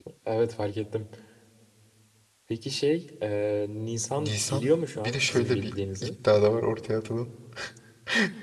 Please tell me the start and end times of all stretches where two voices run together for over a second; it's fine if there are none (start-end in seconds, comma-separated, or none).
4.1-6.1